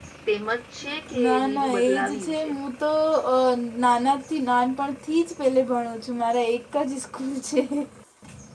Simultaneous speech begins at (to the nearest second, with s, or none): 1 s